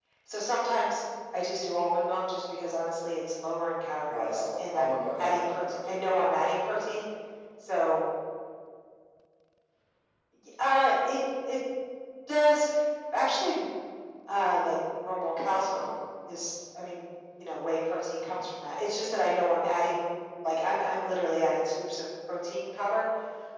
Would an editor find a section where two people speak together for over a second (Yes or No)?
Yes